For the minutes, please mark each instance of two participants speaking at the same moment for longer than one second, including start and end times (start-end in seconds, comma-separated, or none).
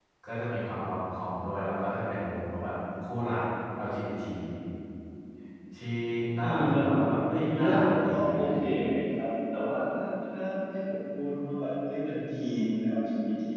7.3-8.6